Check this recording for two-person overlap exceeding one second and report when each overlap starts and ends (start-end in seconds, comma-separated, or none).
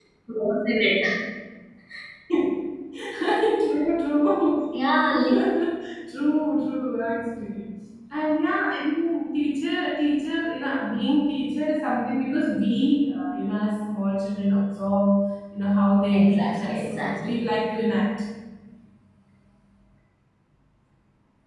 16.1-17.4